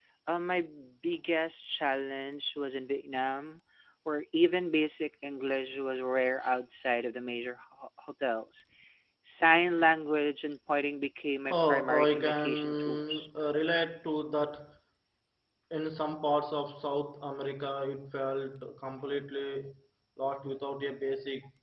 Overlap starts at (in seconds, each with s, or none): 11.5 s